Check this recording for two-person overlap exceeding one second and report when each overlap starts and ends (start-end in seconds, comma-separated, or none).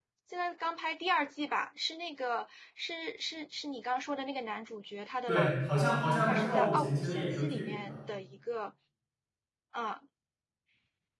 5.3-8.0